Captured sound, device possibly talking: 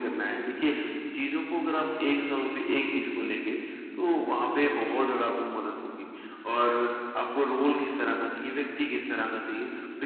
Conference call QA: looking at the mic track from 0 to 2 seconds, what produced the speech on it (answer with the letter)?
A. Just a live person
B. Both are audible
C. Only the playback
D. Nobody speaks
C